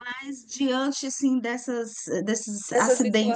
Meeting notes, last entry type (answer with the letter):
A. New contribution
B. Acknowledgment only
B